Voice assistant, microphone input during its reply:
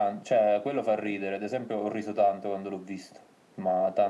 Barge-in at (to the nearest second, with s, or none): none